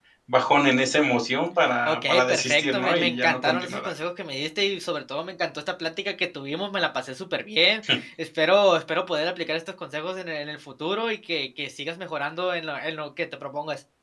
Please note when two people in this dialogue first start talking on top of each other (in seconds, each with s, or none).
1.6 s